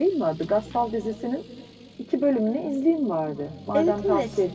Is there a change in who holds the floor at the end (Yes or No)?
Yes